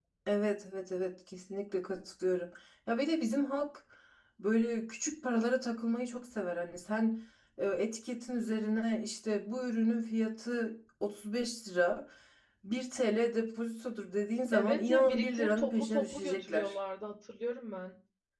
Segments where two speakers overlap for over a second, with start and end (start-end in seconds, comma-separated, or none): 14.5-16.8